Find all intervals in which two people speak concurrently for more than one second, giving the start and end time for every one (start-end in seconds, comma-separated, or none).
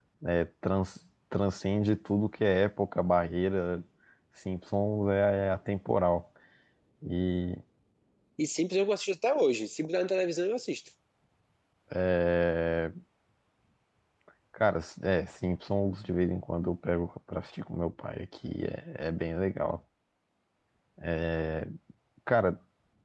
none